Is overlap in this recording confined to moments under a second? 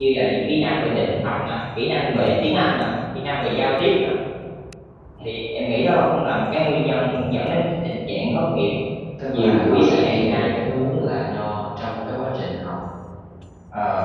No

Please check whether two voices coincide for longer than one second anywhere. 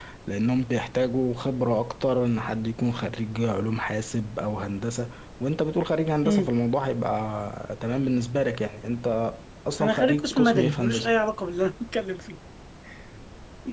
Yes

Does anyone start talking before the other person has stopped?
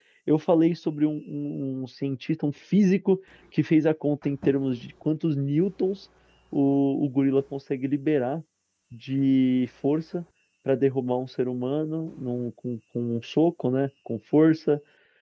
No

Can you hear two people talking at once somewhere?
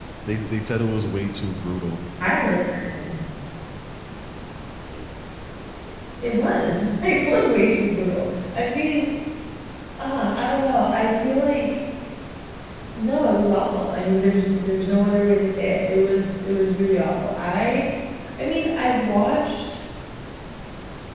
No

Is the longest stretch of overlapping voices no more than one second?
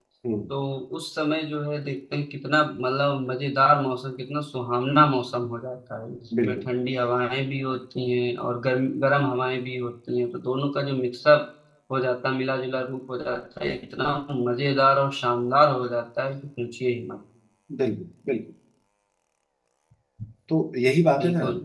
Yes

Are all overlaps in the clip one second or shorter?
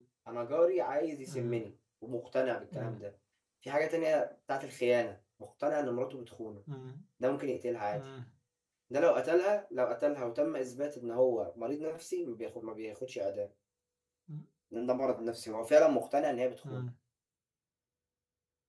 Yes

